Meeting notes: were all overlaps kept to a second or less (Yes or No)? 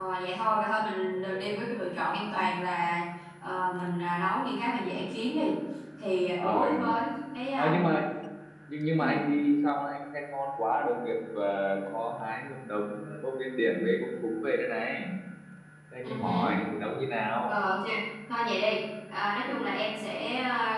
Yes